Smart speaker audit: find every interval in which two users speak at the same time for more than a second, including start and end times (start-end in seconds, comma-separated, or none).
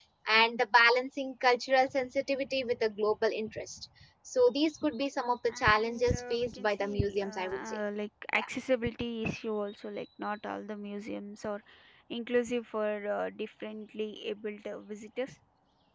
5.5-7.8